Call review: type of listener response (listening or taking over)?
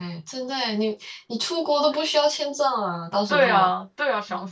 taking over